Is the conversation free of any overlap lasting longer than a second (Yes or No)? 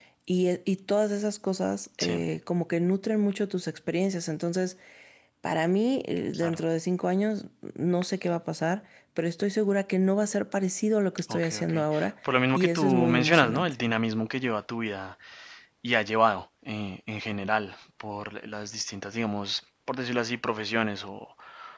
No